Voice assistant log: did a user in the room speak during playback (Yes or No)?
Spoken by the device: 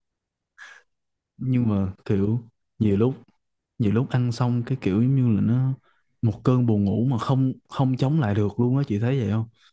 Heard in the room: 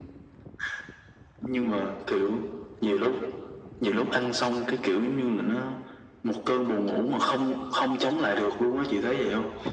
No